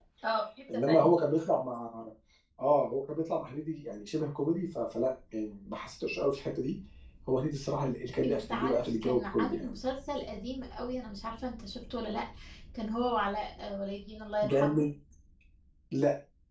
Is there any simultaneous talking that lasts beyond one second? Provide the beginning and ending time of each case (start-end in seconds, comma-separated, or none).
8.2-9.8